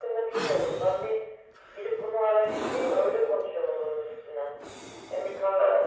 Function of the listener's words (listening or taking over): listening